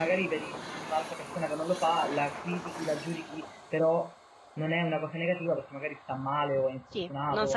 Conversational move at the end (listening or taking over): taking over